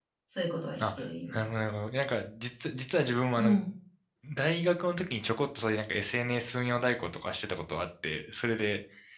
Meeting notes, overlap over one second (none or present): none